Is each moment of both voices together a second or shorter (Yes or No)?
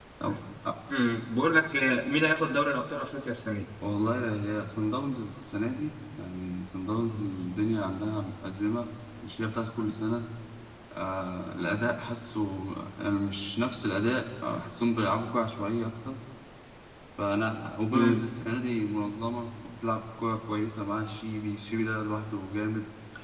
Yes